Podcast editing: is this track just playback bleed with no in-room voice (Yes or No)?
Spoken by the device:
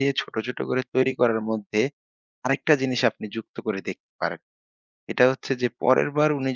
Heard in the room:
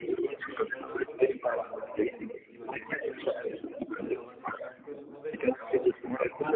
No